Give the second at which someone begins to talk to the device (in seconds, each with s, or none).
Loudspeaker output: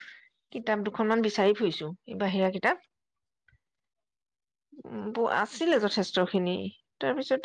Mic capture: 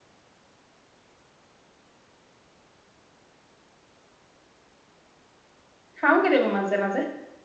6.0 s